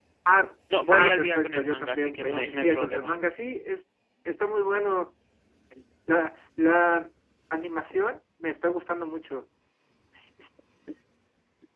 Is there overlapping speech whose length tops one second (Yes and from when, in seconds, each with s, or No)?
Yes, from 0.9 s